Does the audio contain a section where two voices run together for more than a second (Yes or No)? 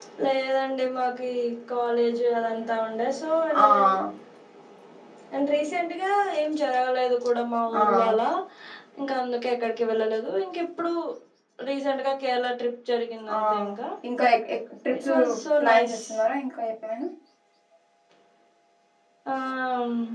No